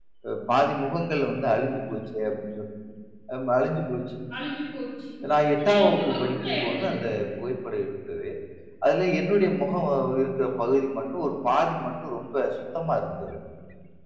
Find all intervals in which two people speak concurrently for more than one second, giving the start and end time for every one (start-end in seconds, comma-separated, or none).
5.6-7.1